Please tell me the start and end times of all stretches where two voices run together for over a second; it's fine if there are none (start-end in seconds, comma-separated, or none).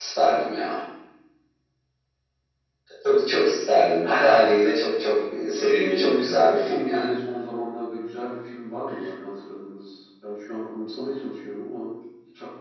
5.6-7.1